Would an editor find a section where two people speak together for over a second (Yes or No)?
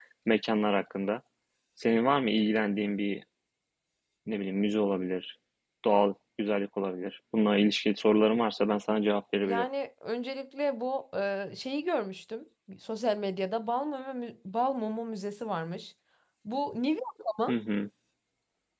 No